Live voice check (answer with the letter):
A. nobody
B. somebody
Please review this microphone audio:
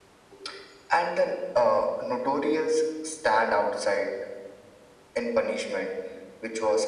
A